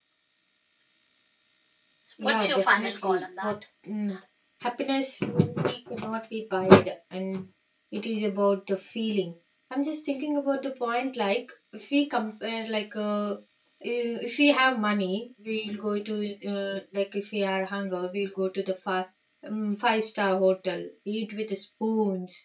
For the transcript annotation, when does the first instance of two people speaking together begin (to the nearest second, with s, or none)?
2 s